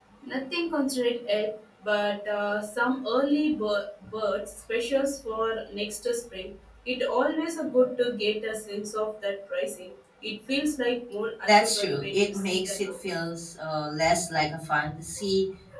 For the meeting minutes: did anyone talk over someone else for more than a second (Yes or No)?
Yes